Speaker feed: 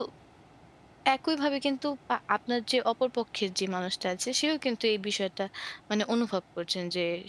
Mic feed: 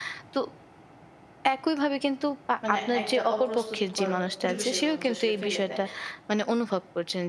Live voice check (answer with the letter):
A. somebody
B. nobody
A